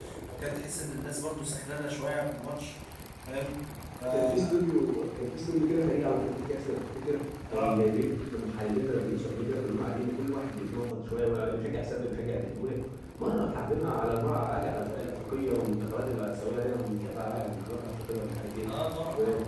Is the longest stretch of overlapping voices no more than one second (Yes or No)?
Yes